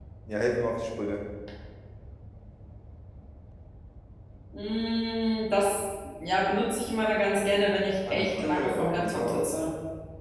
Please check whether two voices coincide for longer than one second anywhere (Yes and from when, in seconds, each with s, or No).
Yes, from 8.0 s